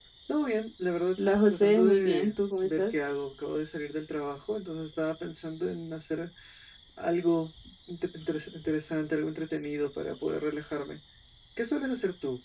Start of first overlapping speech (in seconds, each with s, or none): 1.5 s